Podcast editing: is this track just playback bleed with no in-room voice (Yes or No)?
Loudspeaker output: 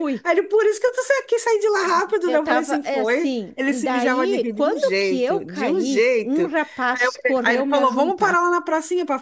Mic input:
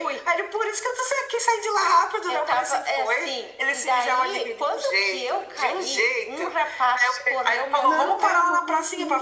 No